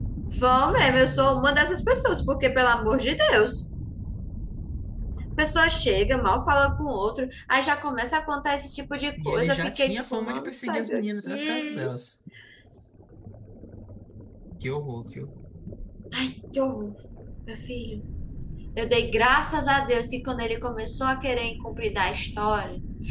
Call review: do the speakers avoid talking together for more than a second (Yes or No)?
No